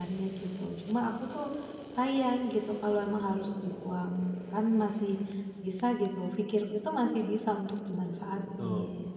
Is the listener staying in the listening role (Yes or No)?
No